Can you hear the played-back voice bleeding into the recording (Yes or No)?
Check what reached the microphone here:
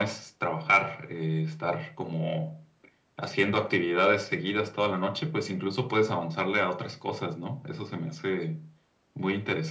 Yes